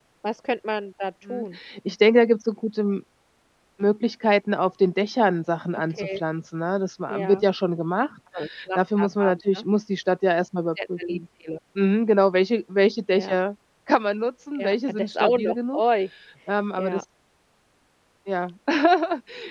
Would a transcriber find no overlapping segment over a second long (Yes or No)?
No